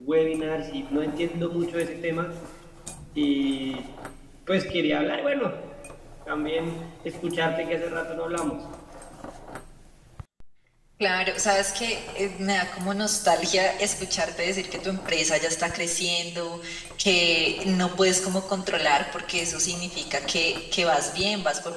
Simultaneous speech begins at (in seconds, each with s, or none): none